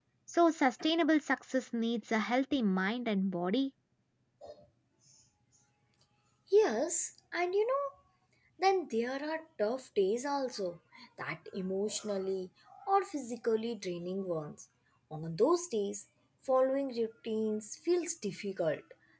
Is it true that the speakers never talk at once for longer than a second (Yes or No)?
Yes